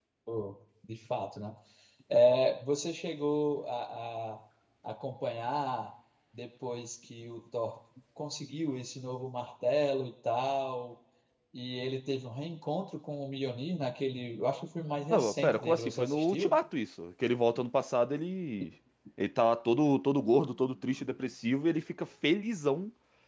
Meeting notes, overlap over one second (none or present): present